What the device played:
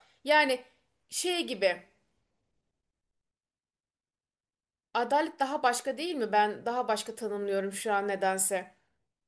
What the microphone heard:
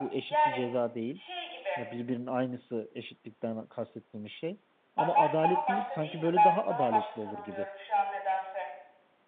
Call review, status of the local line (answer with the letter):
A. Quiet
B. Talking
B